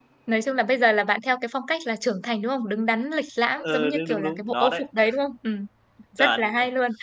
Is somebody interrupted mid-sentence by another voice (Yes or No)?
Yes